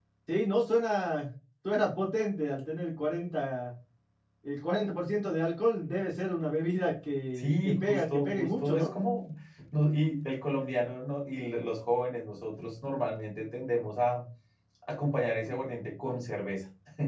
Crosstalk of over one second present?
Yes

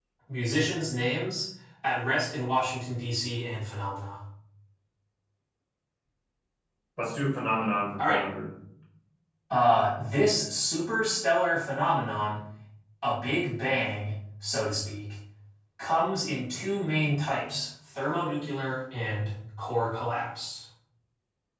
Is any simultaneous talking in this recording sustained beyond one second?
No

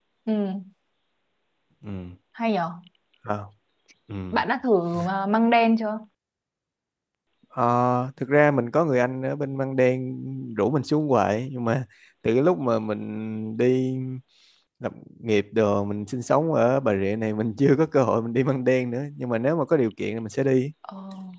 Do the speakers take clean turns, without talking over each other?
Yes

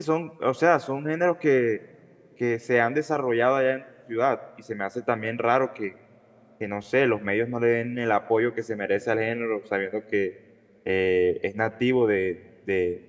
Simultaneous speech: No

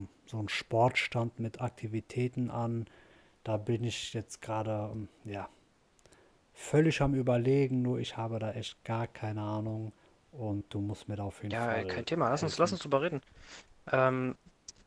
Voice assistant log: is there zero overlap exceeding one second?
No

